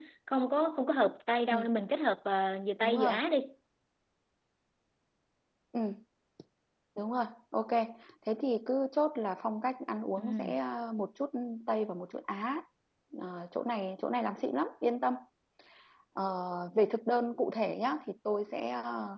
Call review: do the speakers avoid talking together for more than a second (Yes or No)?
Yes